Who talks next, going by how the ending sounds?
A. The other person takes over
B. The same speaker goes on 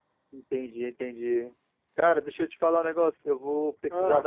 B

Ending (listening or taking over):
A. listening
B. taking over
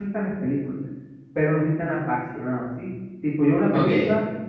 A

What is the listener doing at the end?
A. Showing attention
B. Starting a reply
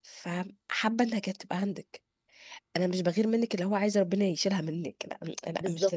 A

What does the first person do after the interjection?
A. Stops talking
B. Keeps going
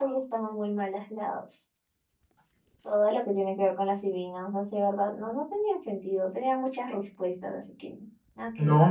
A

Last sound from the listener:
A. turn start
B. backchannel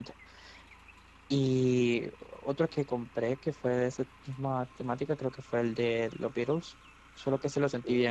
B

